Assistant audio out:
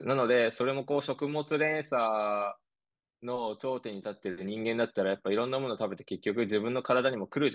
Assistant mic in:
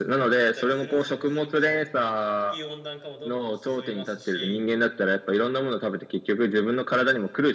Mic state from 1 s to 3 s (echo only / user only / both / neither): both